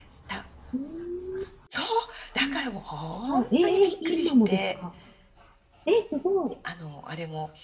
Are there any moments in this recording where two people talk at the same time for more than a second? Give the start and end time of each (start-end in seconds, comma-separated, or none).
3.3-4.7